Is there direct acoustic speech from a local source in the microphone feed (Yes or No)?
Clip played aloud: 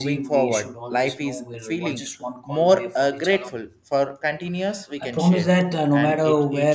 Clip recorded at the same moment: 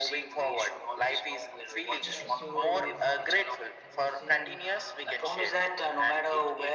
Yes